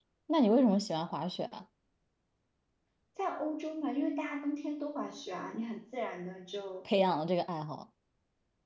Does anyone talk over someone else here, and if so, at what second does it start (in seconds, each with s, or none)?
none